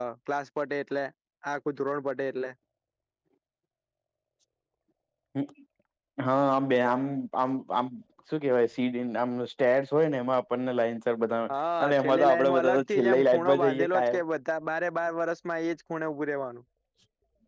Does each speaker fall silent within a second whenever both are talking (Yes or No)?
No